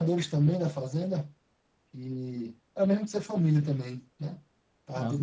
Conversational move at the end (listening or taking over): taking over